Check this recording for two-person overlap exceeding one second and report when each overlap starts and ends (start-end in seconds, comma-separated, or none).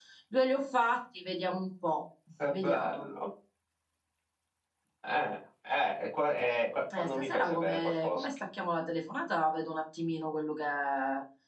7.0-8.2